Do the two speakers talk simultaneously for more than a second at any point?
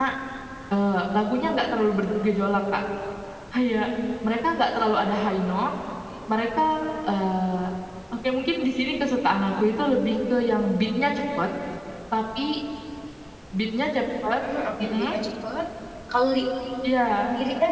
No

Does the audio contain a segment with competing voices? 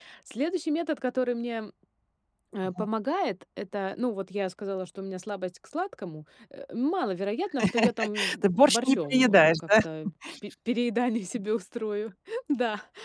Yes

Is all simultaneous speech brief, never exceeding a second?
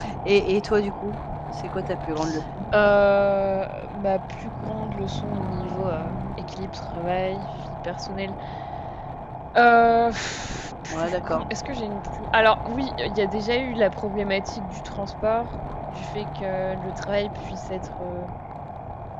Yes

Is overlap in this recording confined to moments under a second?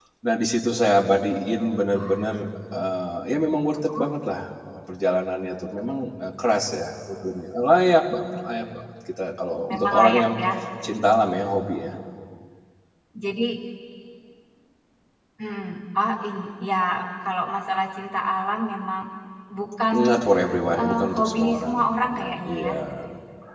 No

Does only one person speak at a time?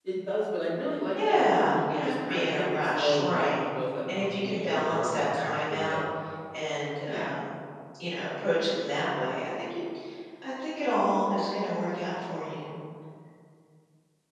No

